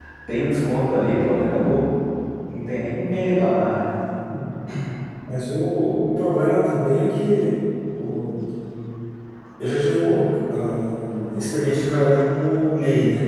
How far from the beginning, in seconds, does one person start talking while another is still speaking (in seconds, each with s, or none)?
none